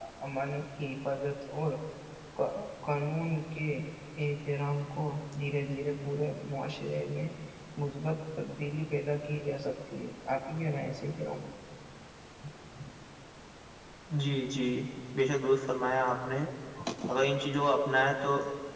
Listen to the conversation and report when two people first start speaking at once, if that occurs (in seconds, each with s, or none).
none